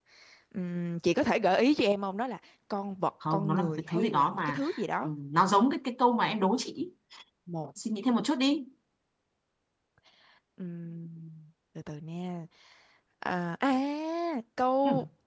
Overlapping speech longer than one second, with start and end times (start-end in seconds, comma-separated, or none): 3.3-4.6